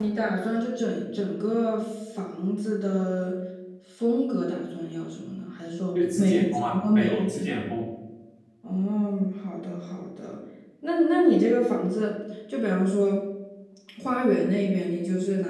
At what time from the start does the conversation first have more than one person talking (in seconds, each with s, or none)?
6.0 s